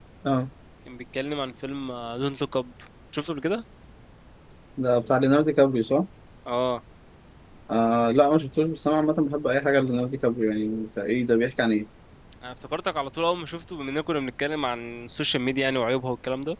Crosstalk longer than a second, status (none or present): none